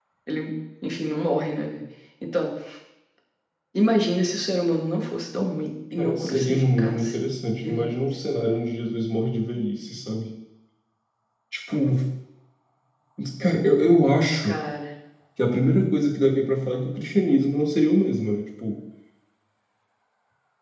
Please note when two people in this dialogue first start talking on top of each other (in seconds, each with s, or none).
5.9 s